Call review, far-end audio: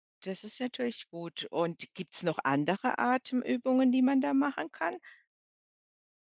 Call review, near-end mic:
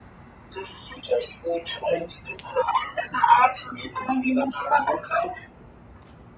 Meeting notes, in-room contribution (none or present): none